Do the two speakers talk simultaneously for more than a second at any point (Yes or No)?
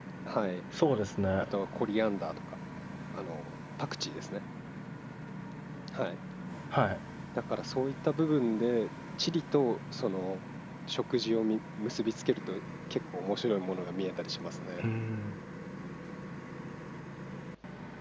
No